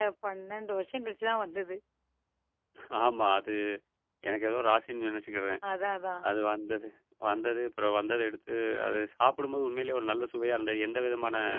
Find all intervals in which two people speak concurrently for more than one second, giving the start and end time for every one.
none

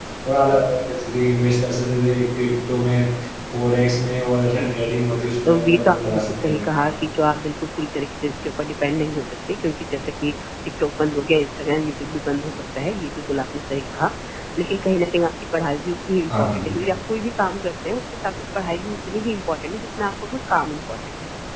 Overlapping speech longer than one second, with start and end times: 5.5-7.1

